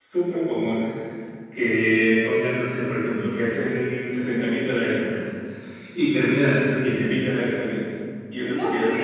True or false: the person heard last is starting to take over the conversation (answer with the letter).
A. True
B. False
A